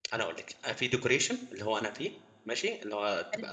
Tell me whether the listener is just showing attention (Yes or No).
Yes